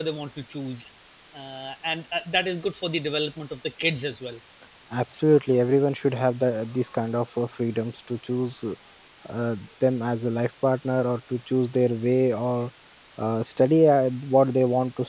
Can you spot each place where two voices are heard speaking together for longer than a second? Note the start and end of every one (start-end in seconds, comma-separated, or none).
none